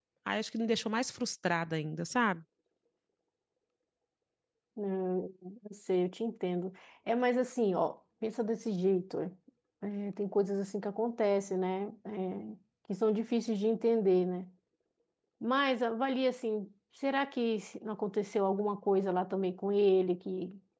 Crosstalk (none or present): none